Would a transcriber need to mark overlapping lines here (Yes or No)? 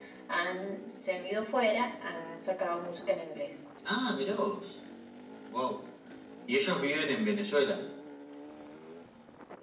No